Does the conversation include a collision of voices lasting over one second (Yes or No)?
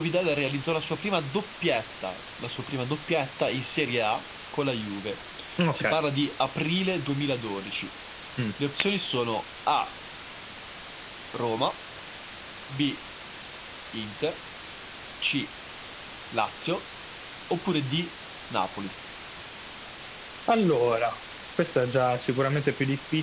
No